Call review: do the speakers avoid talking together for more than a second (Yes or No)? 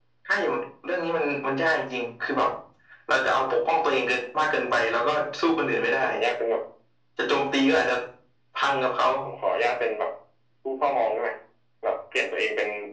Yes